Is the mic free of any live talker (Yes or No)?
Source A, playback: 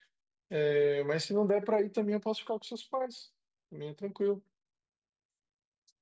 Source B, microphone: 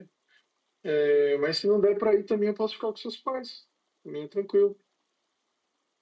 Yes